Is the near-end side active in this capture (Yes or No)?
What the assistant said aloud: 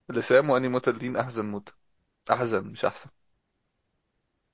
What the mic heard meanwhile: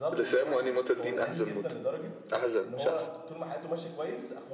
Yes